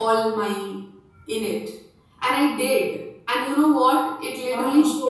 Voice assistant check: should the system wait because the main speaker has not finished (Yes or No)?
Yes